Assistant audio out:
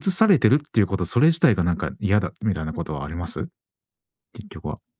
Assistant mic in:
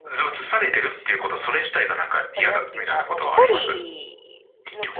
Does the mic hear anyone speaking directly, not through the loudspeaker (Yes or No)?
Yes